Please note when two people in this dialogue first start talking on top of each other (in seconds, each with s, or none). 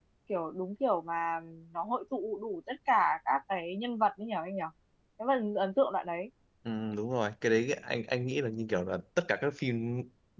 none